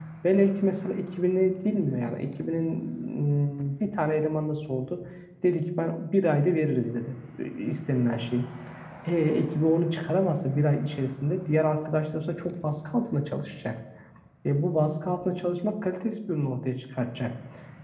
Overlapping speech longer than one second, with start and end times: none

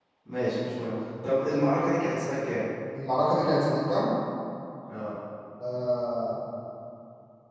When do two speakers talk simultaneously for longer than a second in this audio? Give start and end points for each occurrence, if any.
none

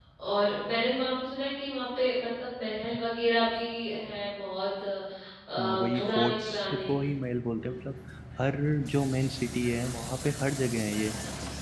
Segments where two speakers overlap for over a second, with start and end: 5.6-6.8

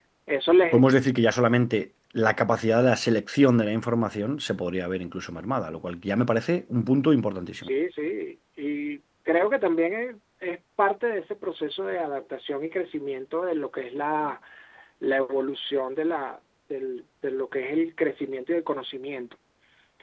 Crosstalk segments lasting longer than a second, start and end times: none

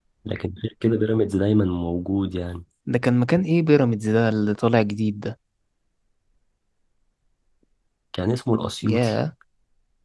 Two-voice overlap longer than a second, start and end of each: none

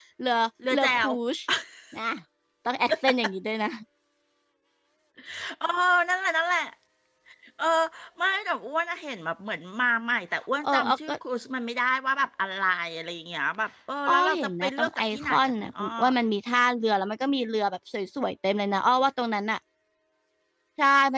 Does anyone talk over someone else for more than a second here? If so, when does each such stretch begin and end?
14.1-15.8

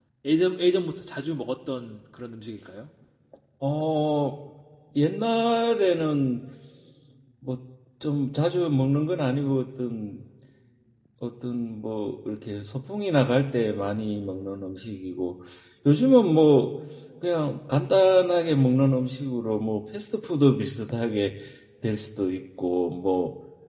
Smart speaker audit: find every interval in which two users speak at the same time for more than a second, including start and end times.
none

